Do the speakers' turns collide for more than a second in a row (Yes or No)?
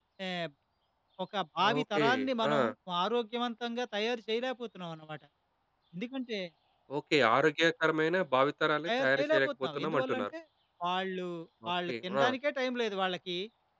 Yes